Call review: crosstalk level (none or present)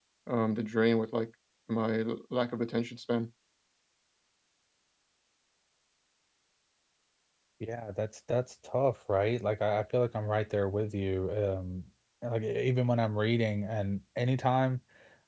none